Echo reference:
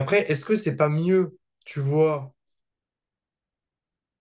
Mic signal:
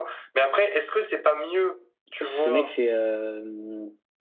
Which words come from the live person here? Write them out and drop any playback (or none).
Ce mec, c'est euh,